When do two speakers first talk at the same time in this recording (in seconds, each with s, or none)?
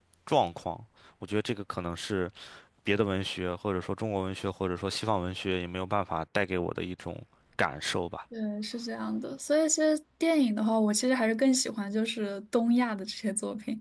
none